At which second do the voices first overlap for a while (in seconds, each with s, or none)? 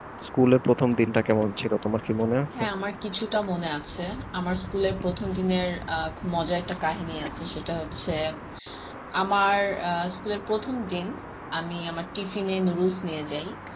none